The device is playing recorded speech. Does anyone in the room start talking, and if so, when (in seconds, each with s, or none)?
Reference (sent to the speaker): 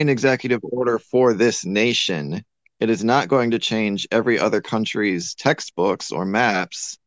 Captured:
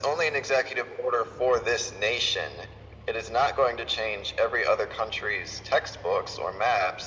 none